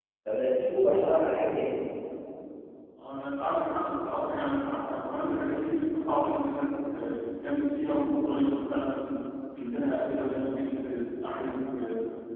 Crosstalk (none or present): none